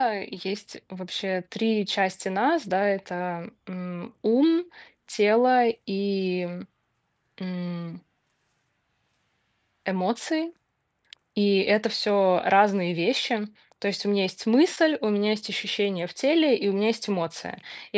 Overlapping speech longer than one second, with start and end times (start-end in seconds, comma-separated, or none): none